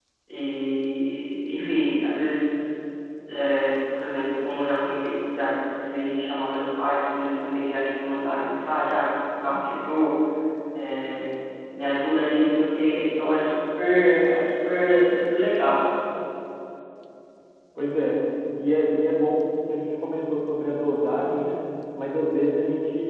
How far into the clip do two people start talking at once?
none

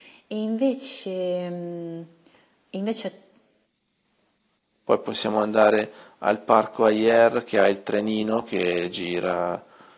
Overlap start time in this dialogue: none

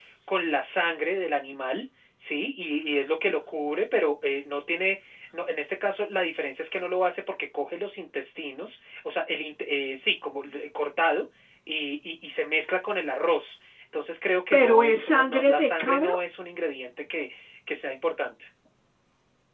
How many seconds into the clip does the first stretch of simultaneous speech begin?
14.5 s

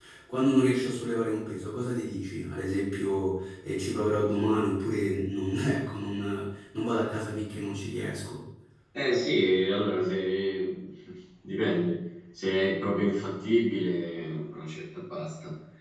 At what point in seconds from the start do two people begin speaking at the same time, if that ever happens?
none

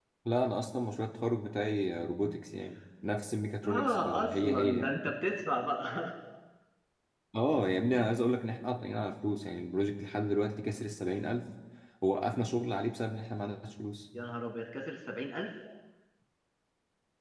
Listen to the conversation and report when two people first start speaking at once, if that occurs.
3.6 s

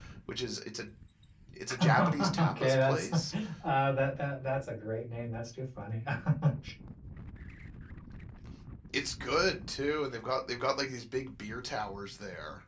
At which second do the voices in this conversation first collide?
1.8 s

